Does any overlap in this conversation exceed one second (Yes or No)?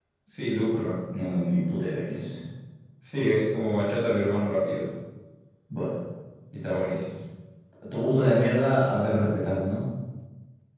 No